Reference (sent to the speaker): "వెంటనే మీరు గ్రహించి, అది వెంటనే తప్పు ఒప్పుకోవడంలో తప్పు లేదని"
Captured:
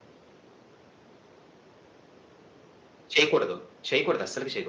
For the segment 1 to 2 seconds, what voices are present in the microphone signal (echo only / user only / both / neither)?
neither